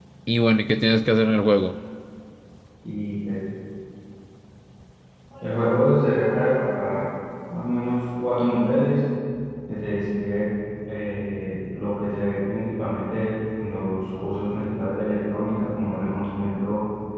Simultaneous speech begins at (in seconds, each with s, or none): none